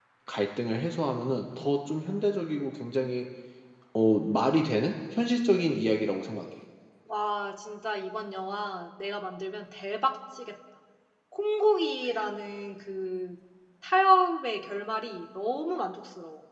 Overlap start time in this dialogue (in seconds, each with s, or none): none